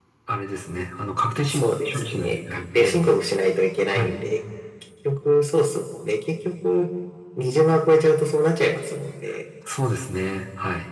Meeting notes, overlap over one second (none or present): present